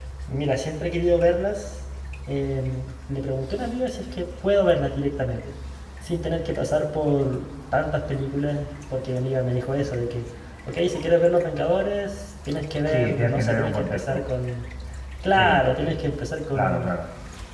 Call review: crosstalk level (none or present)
present